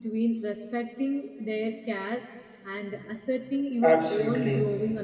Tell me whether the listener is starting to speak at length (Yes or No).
Yes